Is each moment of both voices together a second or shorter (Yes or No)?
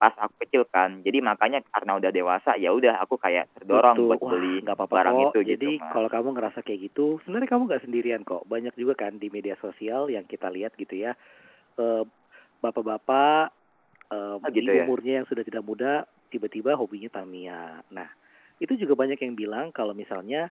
No